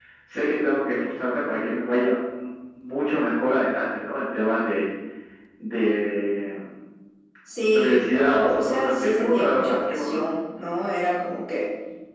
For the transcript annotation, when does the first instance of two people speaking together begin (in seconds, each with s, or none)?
7.7 s